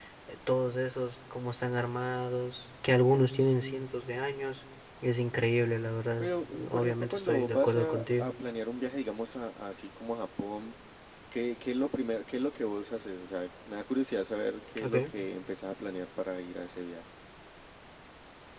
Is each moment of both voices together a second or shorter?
No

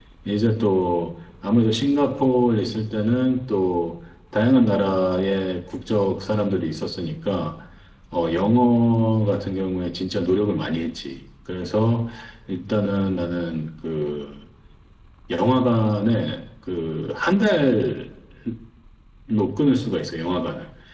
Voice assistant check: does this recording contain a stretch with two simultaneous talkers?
No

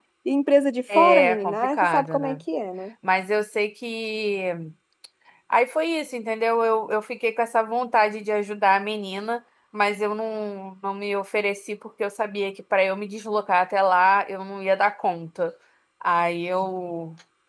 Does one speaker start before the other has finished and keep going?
Yes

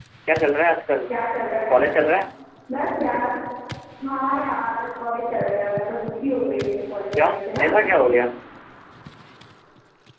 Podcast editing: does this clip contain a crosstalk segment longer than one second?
No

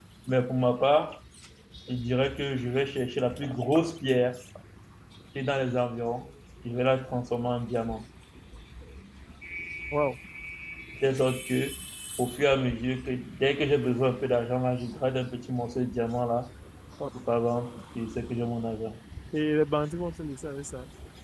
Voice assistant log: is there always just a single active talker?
Yes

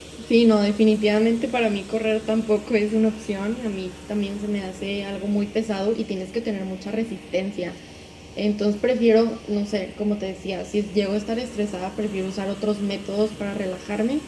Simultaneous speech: No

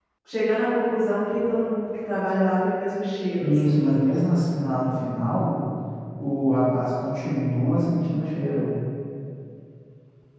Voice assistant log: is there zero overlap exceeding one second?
Yes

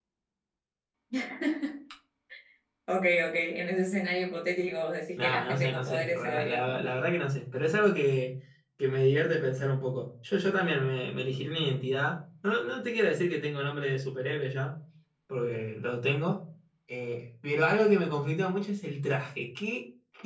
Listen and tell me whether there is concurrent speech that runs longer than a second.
Yes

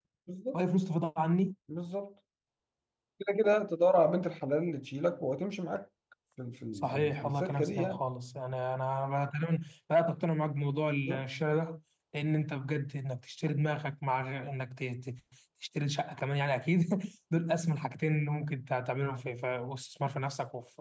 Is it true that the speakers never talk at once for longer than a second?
No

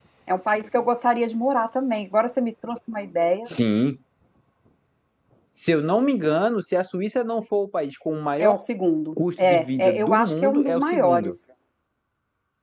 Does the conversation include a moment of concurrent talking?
Yes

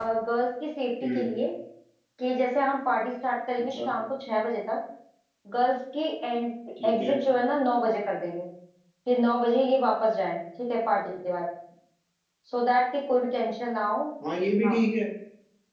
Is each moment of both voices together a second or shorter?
Yes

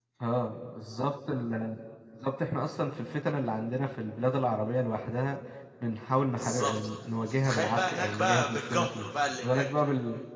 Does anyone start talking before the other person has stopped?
Yes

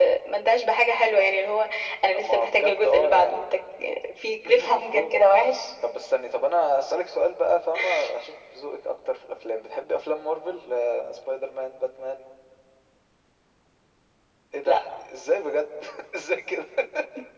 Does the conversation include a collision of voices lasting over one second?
Yes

